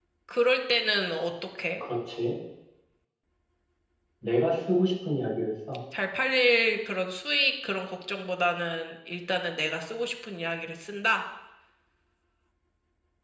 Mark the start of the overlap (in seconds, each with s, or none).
none